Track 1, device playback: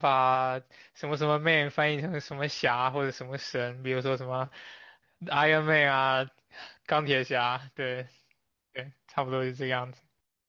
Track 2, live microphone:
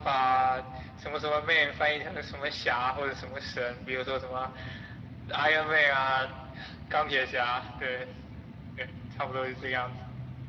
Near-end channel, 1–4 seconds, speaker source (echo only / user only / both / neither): echo only